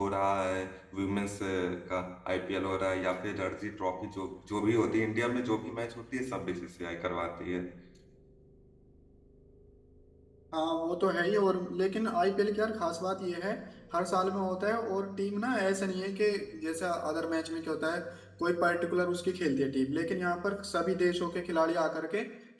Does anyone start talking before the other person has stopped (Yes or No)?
No